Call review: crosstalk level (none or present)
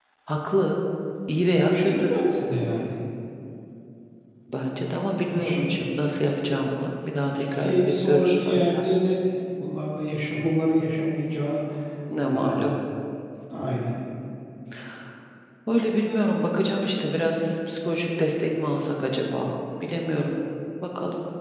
present